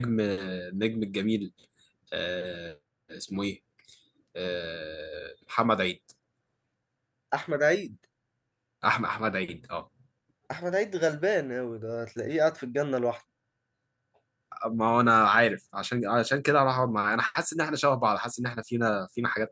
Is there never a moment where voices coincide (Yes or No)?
Yes